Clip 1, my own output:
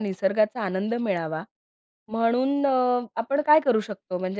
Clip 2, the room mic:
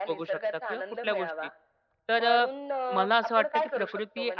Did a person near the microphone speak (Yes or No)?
Yes